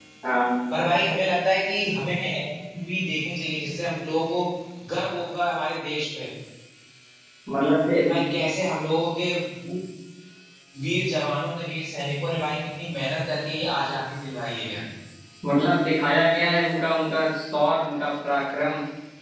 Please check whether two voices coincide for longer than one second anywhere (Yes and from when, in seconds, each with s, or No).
No